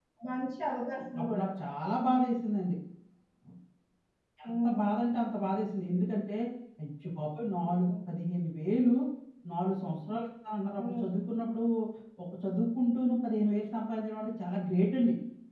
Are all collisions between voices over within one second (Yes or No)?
Yes